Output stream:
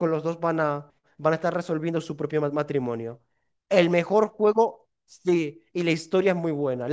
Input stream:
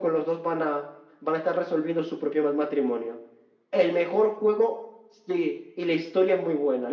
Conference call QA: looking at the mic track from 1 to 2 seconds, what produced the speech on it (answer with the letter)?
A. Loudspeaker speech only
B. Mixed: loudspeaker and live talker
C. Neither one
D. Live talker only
A